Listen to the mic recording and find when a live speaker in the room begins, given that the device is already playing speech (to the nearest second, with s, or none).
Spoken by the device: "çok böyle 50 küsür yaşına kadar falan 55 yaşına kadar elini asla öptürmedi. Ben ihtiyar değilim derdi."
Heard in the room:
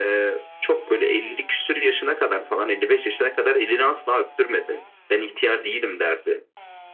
none